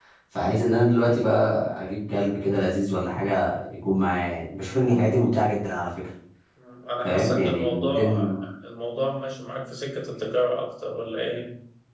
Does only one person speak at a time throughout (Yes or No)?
No